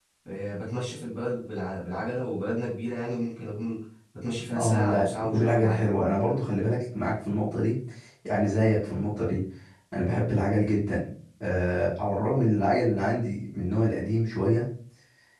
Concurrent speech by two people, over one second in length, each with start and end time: 4.6-5.9

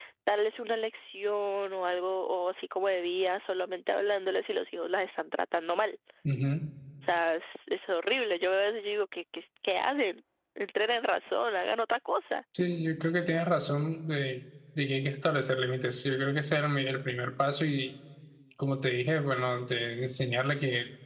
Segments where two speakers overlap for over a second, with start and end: none

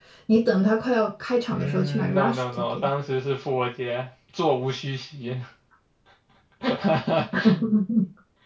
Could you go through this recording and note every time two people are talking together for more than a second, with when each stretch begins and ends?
1.5-2.9

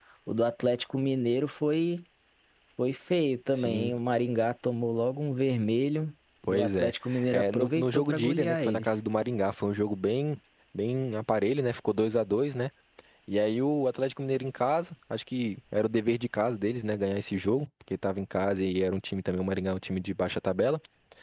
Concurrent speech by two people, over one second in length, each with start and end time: 7.3-9.0

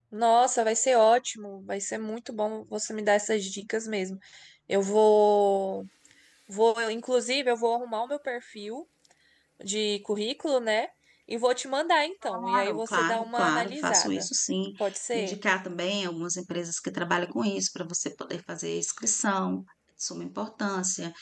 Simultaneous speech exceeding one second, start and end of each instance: 12.2-14.3

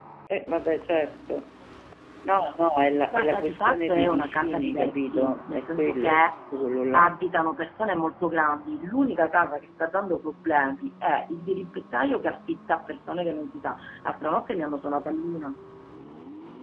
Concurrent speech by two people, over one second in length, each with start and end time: 3.1-6.1

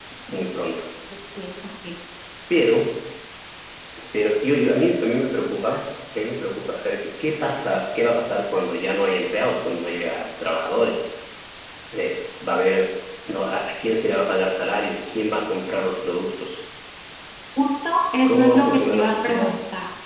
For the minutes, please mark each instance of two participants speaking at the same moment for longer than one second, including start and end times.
18.2-19.5

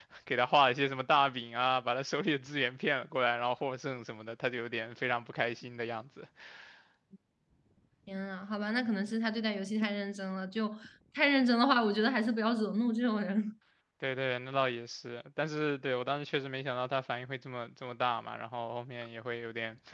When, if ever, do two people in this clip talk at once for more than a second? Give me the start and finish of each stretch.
none

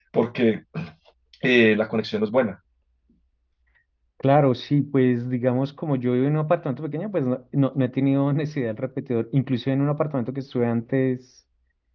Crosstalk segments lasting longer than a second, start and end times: none

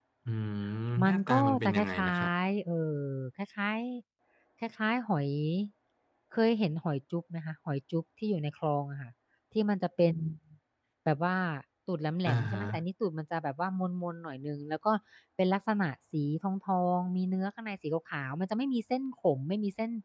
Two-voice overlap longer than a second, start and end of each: 1.0-2.3

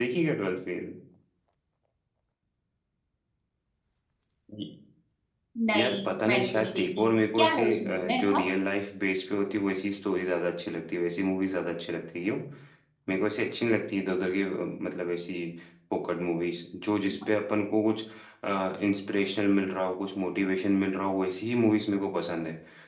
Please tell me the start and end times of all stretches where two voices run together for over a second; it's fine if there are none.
5.8-8.4

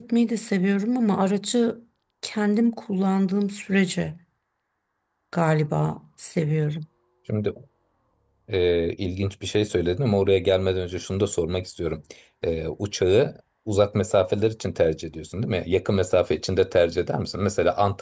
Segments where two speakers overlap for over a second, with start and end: none

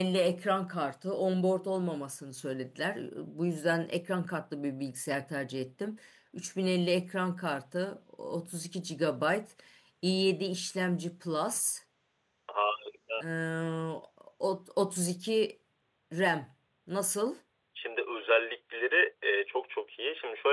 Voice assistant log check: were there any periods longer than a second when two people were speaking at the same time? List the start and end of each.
none

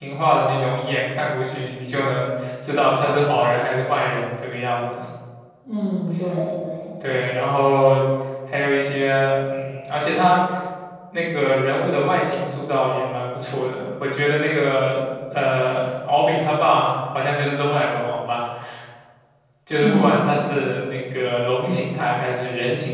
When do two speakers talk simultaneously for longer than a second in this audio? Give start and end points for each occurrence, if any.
none

